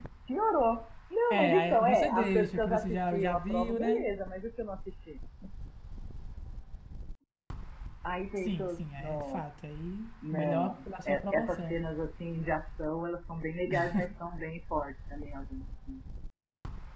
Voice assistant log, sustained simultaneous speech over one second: present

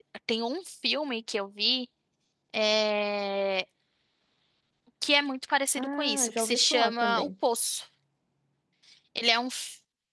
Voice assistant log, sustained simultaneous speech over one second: present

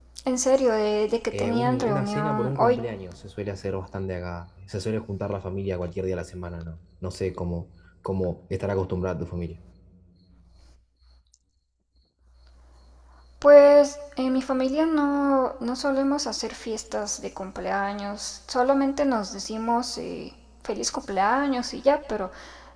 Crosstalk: present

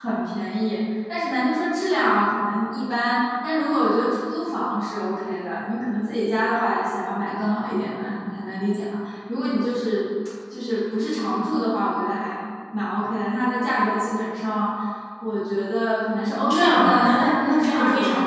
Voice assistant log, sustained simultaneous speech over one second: present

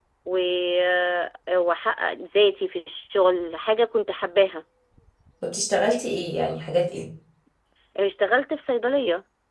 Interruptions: none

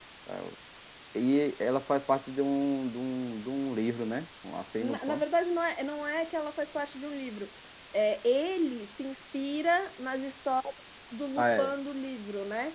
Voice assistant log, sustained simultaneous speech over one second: none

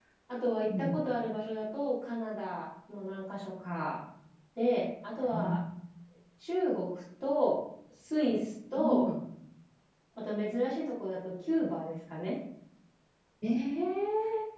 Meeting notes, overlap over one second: none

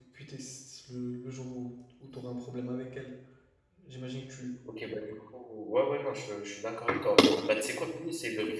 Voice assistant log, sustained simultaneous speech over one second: none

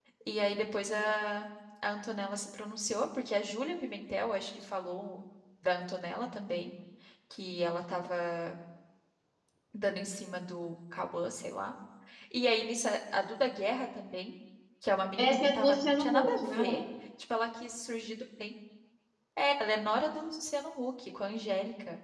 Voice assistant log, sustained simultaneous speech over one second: present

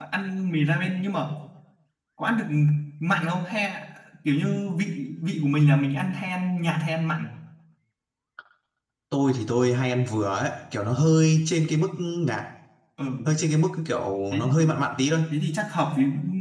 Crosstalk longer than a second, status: none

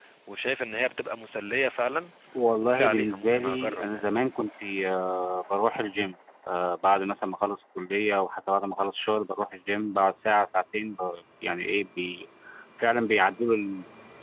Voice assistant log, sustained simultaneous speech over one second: present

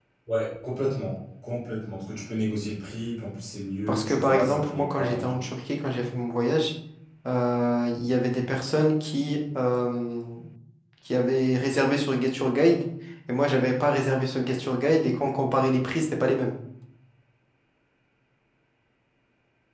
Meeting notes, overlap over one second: present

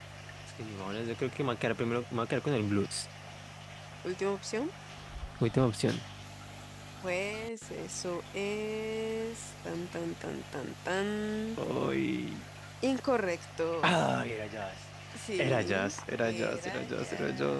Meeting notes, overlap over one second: present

